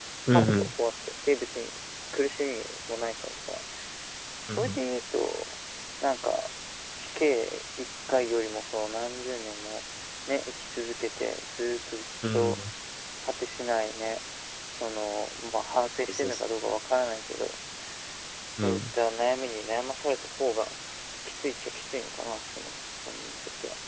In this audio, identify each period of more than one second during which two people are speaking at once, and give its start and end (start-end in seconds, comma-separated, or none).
none